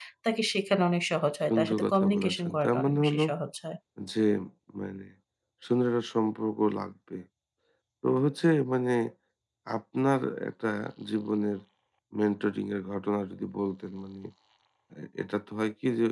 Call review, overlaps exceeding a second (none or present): present